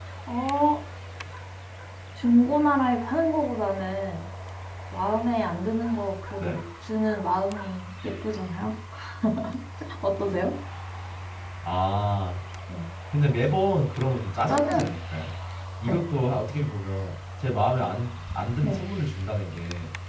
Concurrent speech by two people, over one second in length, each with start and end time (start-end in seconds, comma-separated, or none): none